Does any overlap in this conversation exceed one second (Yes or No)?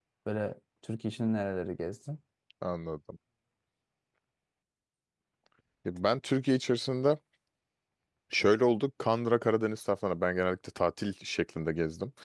No